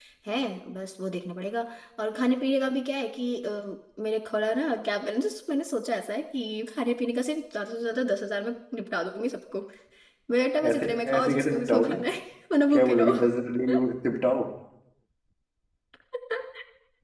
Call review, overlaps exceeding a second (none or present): present